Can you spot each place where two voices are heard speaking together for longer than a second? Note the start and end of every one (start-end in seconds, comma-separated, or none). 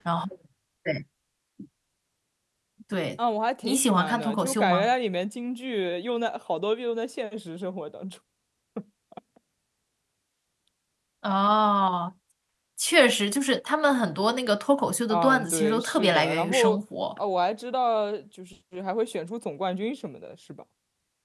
3.6-4.9, 15.1-16.8